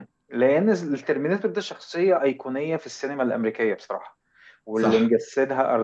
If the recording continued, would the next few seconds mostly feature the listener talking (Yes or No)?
No